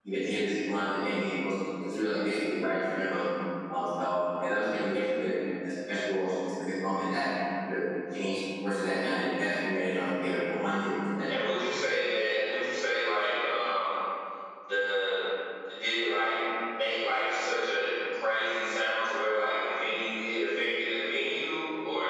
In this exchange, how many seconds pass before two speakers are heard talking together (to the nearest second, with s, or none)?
none